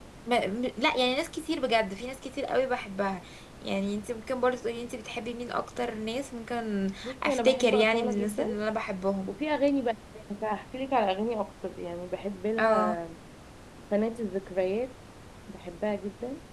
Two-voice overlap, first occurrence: 7.0 s

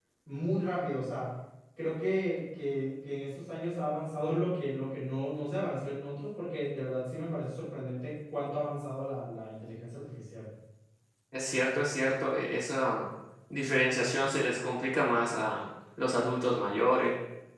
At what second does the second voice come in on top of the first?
none

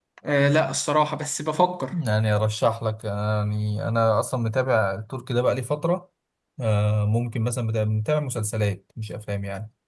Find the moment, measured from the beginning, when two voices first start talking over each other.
none

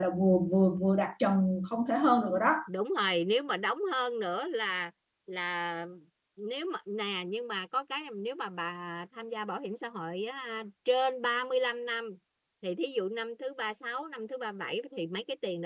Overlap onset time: none

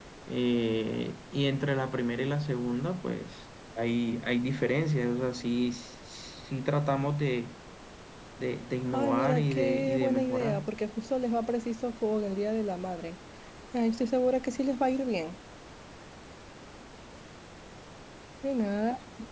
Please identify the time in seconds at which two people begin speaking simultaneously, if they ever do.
8.9 s

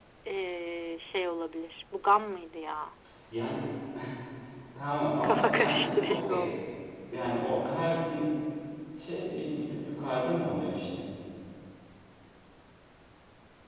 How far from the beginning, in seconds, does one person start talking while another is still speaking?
5.2 s

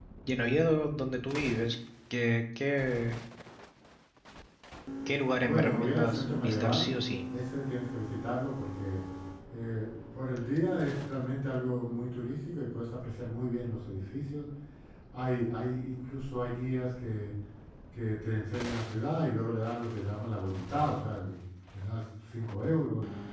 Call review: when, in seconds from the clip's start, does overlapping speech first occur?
5.4 s

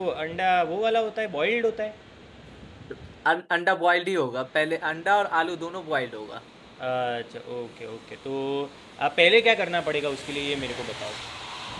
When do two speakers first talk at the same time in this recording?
none

